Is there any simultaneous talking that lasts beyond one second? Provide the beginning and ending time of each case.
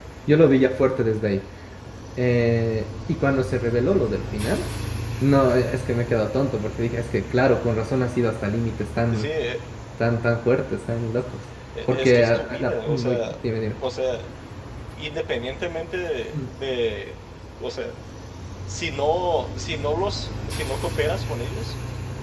11.9-13.2

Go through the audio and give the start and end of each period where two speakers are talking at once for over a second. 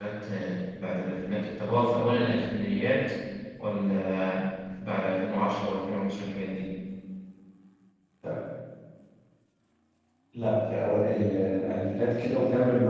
none

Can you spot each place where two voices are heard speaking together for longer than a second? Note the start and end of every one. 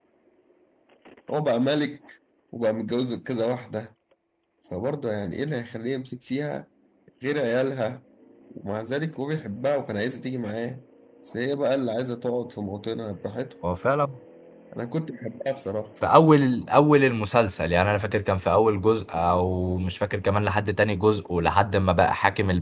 none

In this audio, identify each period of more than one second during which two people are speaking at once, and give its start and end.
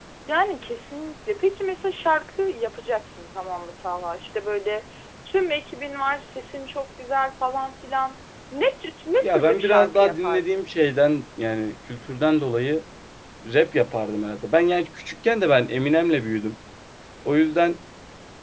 9.2-10.7

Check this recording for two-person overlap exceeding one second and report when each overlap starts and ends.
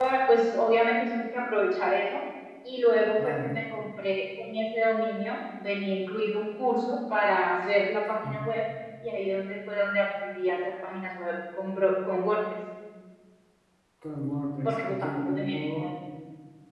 14.7-15.9

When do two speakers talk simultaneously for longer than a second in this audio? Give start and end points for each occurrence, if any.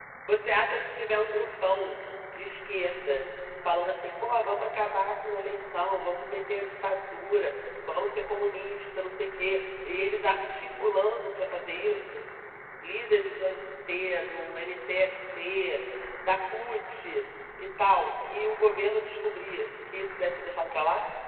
none

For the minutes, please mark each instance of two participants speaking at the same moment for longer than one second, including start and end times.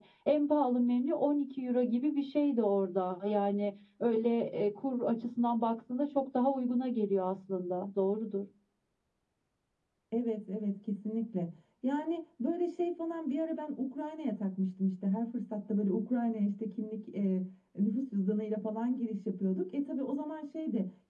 none

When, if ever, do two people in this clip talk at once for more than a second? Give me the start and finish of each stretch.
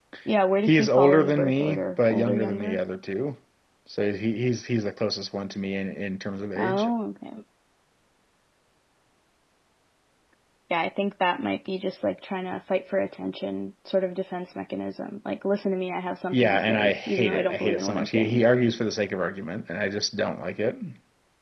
0.6-2.8, 16.3-18.4

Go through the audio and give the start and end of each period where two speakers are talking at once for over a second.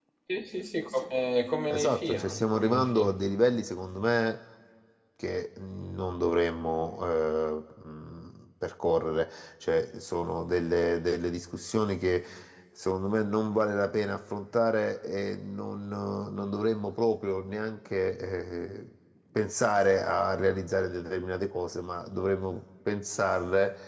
1.7-3.1

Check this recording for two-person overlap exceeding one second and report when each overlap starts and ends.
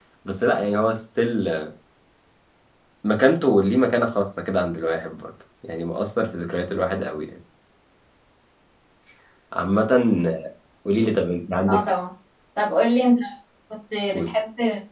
none

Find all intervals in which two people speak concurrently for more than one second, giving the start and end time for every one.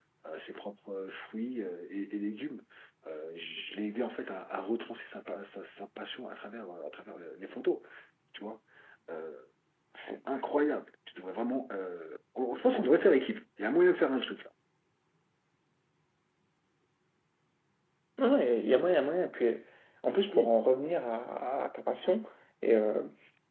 none

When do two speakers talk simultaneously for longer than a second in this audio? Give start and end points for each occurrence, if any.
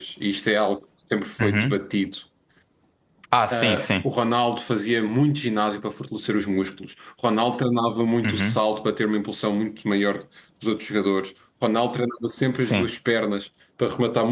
none

